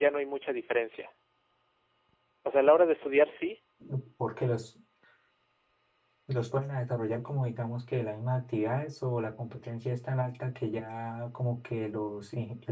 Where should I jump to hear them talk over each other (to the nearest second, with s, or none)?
none